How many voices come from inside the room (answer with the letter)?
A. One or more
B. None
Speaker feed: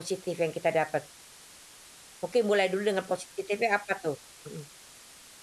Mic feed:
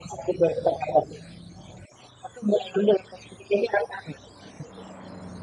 B